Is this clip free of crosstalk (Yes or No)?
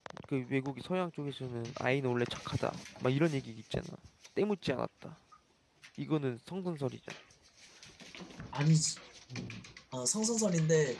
Yes